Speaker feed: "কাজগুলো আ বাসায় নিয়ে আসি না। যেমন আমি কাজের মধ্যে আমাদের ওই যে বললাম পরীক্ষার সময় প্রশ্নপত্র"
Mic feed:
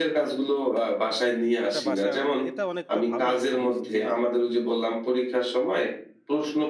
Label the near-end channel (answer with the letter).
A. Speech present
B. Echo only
A